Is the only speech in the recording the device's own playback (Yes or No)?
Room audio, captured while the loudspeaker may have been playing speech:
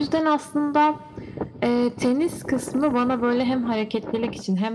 Yes